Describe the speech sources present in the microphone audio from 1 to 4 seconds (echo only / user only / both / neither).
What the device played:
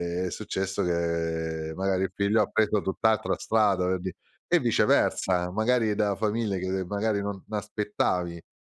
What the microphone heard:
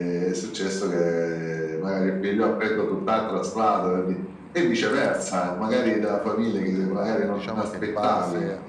echo only